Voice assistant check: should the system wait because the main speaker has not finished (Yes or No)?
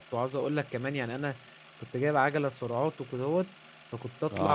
Yes